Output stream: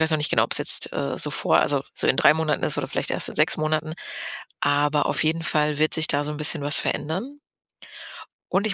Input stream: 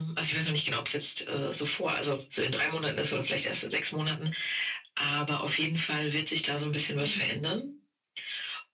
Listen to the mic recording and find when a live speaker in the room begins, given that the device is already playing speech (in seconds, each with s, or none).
7.0 s